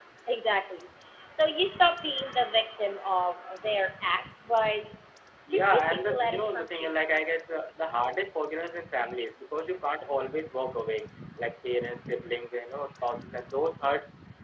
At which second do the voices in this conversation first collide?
5.5 s

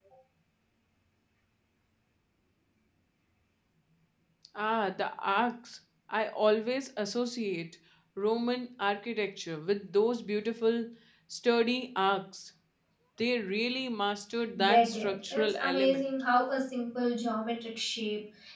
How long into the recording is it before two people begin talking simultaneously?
14.6 s

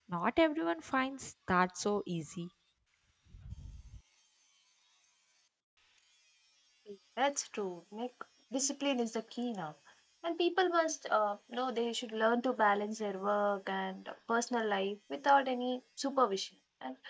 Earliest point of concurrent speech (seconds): none

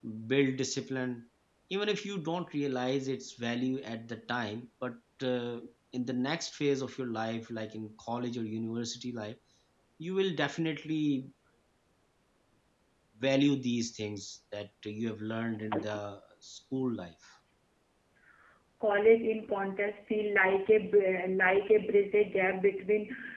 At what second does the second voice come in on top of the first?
none

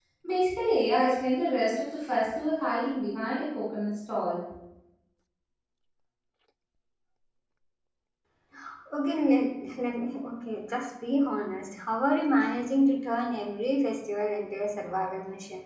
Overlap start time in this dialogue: none

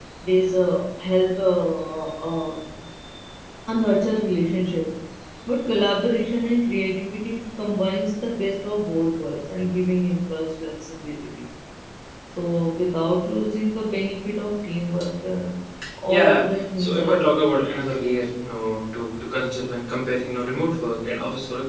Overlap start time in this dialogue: 16.1 s

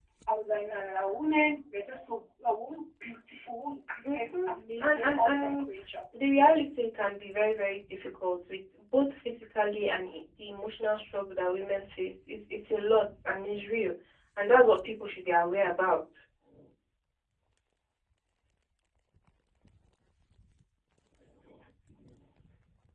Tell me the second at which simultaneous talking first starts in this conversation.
4.0 s

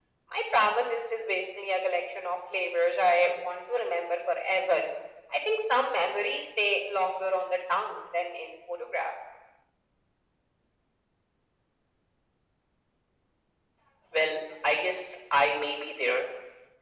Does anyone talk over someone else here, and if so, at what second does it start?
none

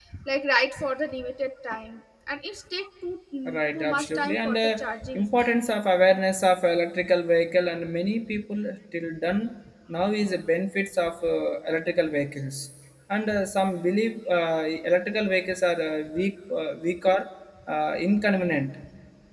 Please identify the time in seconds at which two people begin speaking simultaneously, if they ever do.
3.5 s

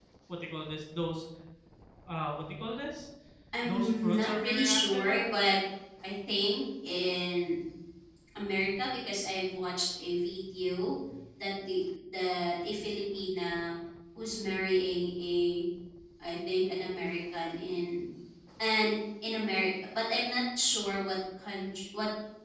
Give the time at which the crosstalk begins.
3.6 s

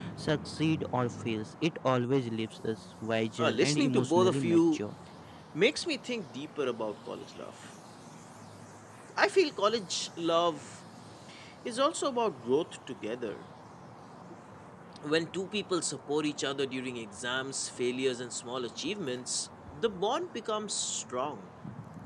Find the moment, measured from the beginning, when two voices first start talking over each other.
3.4 s

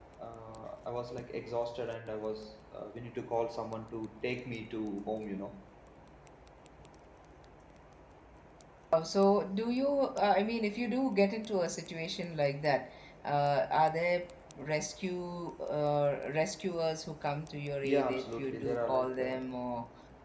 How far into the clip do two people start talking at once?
17.8 s

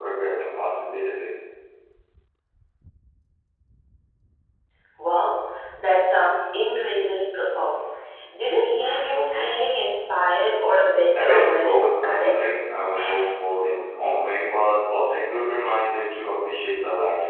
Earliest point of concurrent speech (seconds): 11.2 s

